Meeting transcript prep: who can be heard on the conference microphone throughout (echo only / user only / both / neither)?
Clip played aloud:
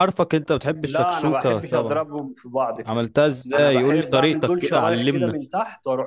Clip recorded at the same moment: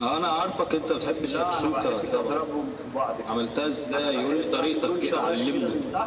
echo only